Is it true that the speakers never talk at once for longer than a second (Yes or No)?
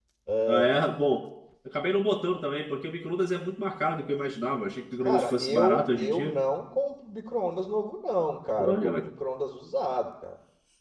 No